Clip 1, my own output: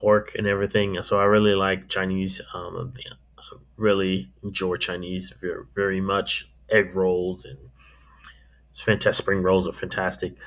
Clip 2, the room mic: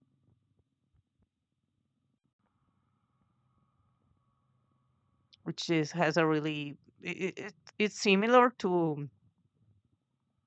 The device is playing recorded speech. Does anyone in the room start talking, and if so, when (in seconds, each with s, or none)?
5.4 s